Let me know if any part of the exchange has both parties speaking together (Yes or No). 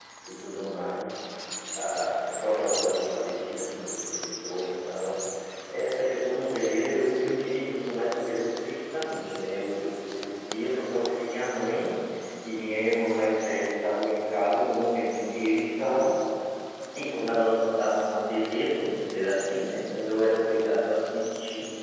No